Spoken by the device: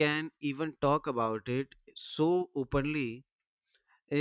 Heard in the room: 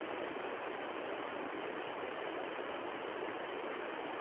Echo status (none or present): none